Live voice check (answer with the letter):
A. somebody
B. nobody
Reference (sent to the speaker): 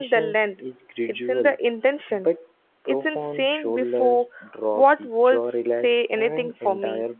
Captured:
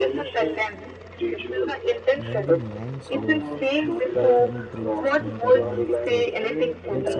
A